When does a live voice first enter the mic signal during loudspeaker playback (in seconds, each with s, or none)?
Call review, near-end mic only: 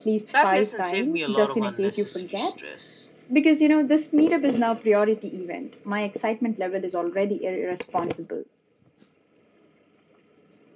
0.3 s